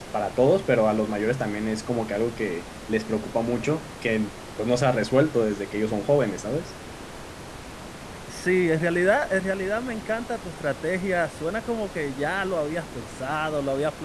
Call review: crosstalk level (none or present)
none